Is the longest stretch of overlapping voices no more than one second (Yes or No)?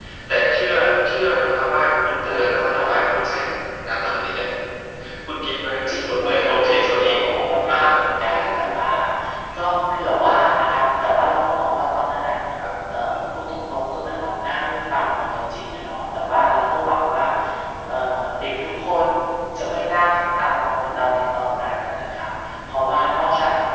No